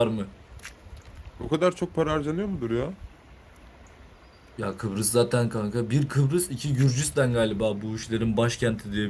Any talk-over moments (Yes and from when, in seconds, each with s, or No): No